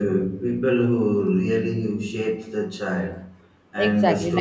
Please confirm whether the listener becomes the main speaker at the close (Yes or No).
Yes